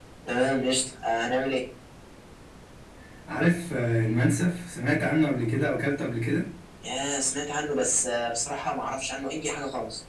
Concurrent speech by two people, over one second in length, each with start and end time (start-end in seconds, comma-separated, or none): none